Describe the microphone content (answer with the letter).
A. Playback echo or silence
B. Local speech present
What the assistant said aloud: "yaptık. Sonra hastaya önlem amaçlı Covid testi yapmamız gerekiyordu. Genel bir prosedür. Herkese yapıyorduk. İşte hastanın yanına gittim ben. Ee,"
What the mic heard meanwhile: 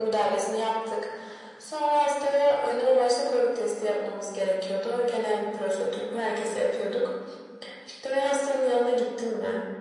A